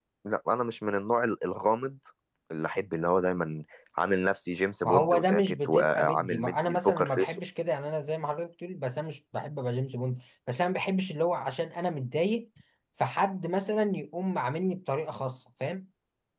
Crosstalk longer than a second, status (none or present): present